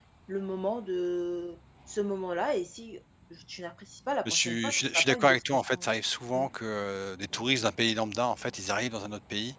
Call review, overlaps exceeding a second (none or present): present